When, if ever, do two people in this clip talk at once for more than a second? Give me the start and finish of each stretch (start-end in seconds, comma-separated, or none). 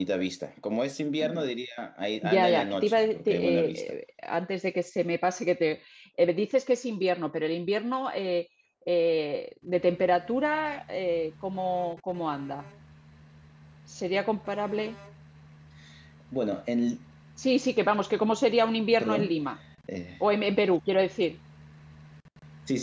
2.2-3.8